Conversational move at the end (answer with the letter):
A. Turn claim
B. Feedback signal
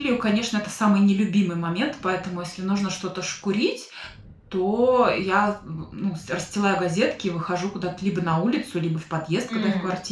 B